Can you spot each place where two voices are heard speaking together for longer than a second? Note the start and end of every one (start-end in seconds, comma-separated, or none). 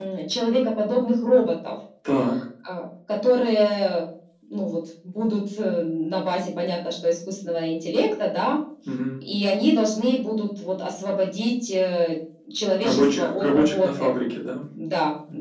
12.8-14.1